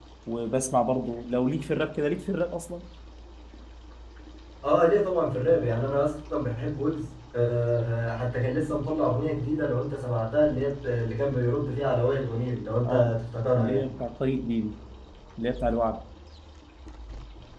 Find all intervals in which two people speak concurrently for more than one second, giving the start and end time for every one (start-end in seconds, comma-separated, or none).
none